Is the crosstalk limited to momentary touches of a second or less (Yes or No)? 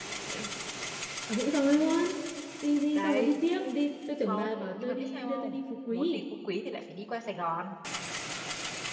No